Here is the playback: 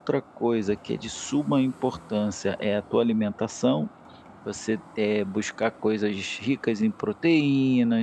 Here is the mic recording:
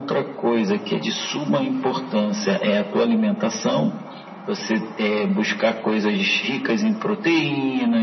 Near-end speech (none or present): none